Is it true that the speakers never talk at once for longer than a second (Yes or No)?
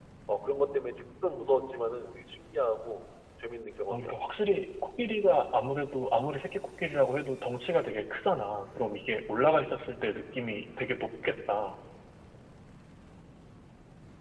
Yes